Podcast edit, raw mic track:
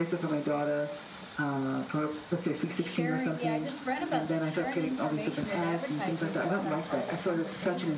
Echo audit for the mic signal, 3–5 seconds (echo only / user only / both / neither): both